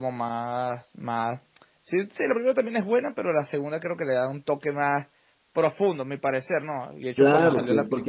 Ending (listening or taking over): taking over